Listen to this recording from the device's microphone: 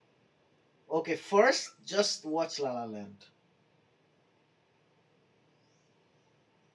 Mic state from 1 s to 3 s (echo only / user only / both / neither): user only